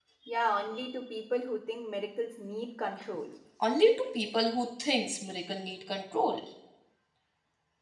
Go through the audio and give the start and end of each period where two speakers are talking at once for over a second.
none

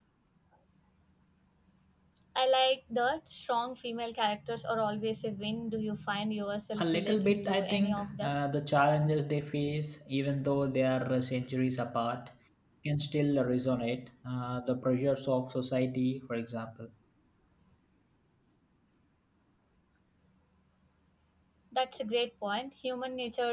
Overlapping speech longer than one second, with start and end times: 6.8-8.3

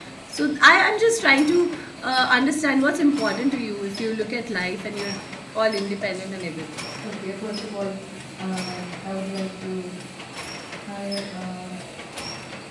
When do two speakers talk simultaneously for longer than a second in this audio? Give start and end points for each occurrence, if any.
none

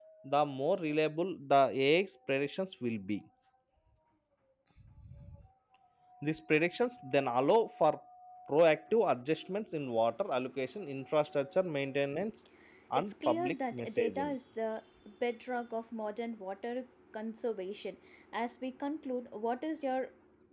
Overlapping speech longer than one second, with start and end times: 12.9-14.3

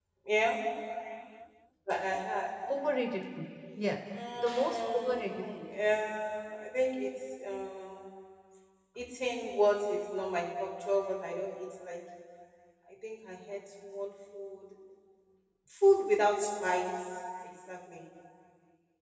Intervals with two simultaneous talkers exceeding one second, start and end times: 4.4-5.6

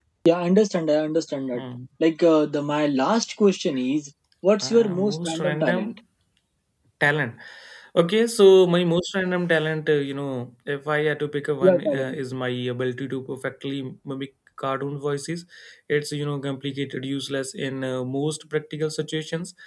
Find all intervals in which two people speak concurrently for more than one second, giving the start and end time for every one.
4.6-6.0

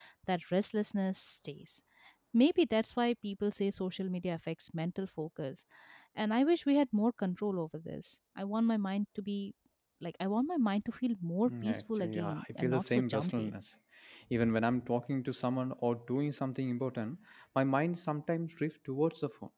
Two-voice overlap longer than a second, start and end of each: 11.5-13.5

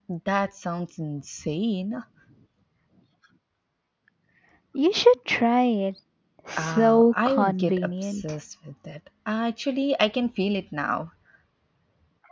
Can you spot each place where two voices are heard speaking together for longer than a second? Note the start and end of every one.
6.5-8.2

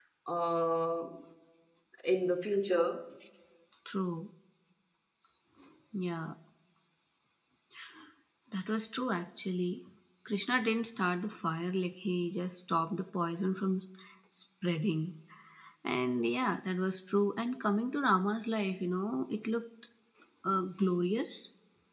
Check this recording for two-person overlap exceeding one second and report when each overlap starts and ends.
none

